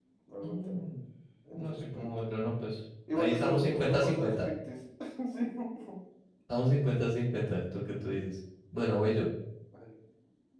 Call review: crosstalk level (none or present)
present